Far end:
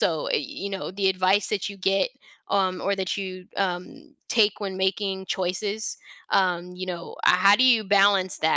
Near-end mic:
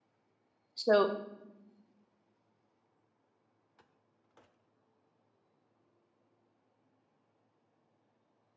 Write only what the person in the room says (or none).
so